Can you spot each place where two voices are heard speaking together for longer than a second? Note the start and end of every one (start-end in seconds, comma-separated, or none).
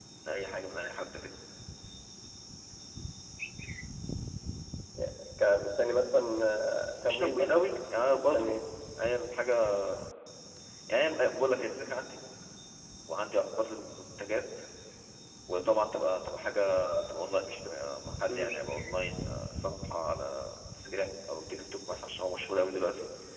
7.0-8.6